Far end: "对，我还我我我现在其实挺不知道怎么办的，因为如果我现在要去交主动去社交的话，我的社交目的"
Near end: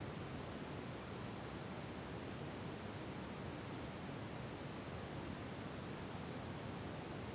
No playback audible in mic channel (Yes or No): Yes